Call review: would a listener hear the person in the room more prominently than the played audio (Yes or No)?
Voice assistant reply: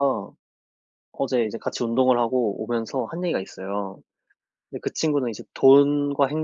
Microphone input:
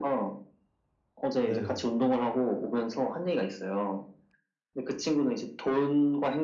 No